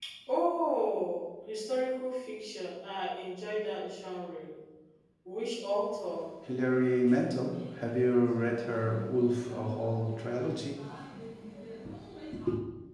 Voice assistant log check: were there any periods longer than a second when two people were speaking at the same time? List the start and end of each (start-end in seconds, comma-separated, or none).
none